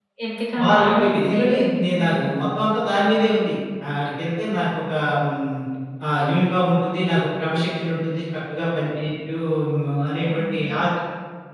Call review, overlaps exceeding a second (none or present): present